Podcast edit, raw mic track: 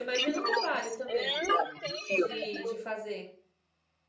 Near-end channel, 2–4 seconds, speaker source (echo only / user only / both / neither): both